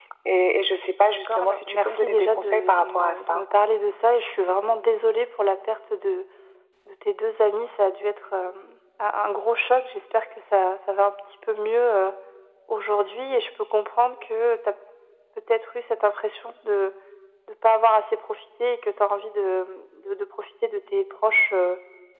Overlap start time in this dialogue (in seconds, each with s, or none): 1.3 s